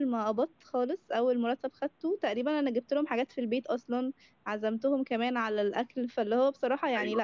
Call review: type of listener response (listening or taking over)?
taking over